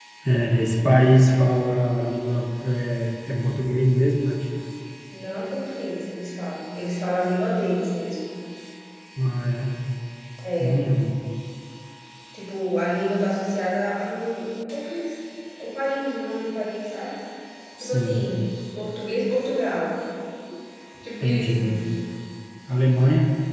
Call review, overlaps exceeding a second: none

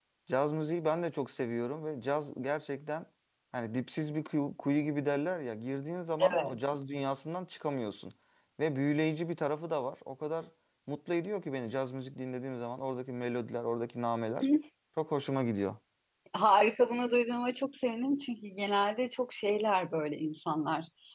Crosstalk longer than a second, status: none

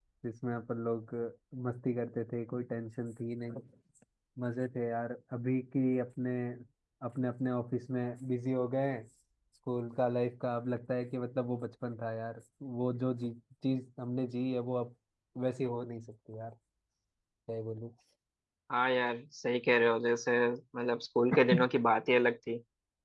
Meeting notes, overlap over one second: none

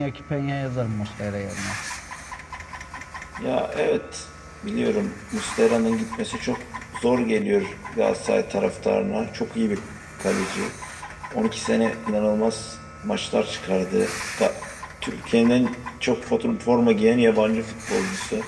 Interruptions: none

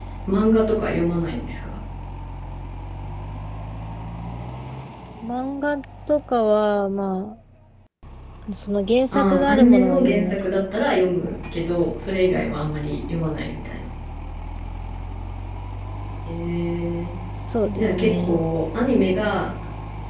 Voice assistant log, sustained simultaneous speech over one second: present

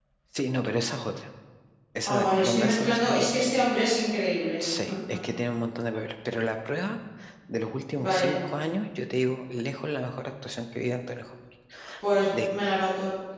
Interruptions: present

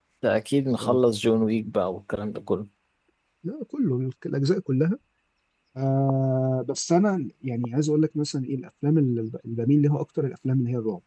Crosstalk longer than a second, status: none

